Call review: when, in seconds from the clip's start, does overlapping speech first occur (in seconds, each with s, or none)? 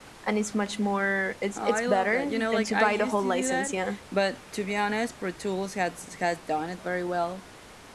1.6 s